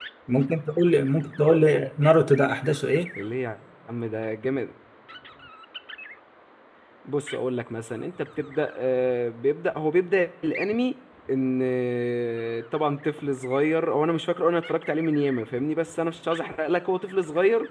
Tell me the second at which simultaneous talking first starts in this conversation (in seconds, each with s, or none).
none